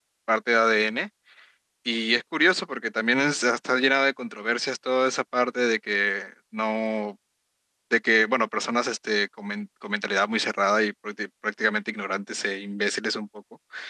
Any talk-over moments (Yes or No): No